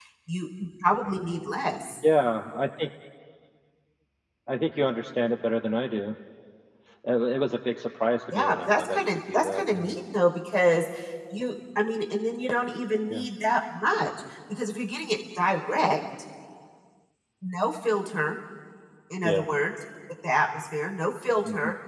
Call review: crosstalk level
present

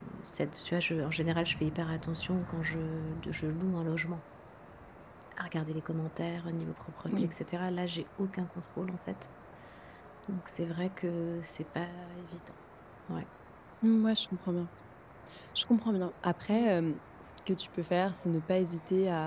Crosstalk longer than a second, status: none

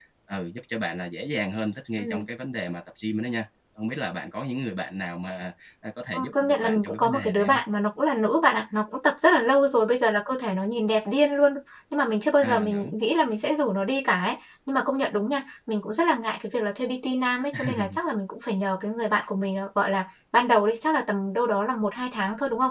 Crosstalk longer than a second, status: present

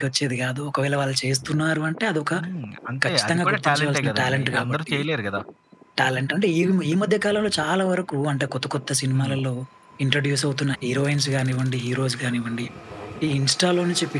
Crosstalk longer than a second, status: present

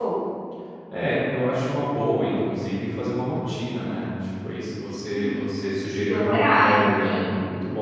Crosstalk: present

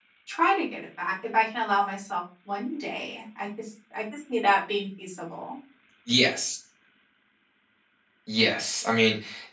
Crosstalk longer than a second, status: none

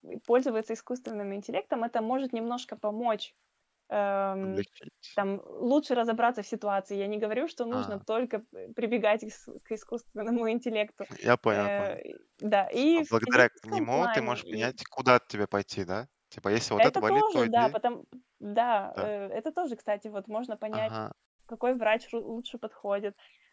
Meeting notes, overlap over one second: present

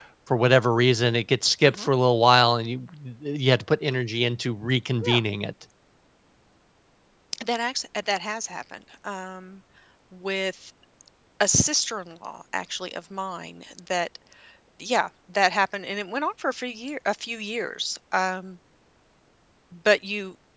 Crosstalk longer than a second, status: none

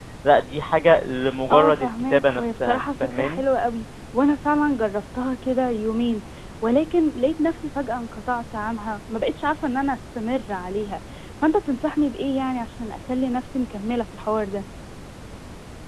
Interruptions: present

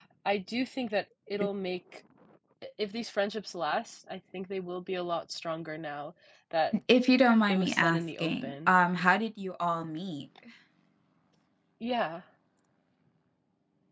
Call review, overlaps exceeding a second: present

